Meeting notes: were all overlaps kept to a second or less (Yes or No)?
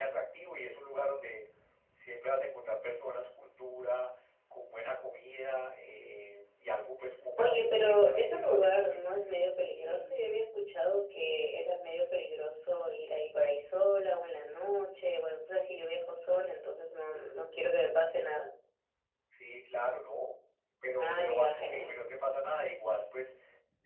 No